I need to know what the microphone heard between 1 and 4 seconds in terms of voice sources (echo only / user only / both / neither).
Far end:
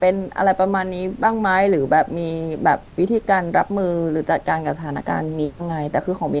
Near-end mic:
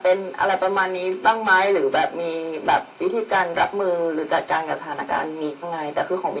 echo only